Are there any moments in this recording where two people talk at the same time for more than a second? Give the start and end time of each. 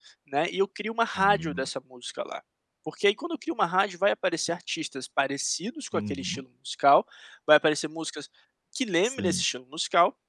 none

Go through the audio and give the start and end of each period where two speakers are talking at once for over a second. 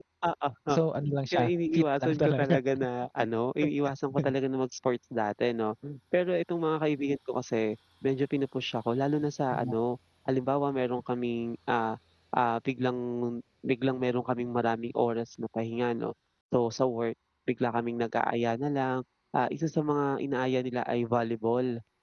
1.3-2.6

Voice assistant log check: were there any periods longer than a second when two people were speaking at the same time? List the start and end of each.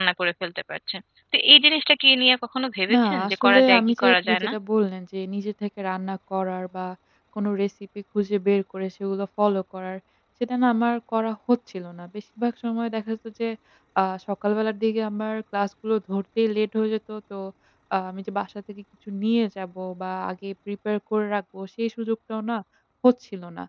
2.9-4.5

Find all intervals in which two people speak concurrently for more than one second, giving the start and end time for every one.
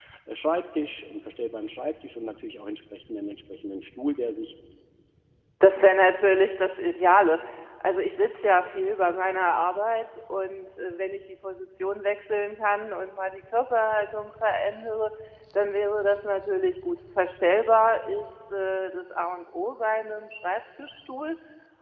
none

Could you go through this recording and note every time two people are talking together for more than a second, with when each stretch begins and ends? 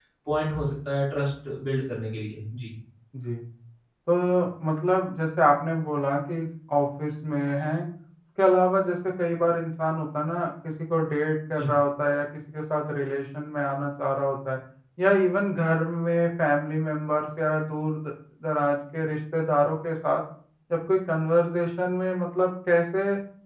none

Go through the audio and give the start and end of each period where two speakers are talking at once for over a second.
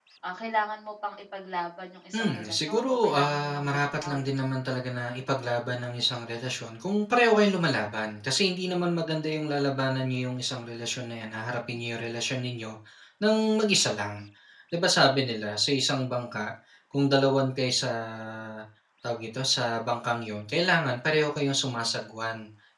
2.2-4.2

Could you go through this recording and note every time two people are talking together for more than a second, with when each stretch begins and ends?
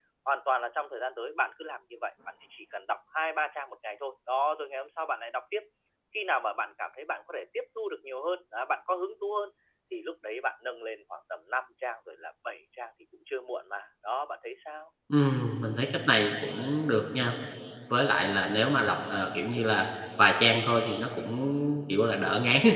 none

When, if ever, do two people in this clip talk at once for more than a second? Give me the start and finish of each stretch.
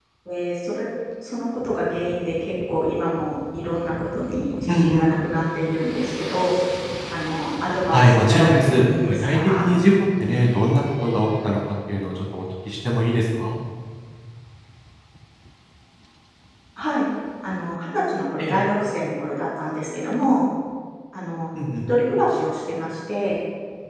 7.9-9.7

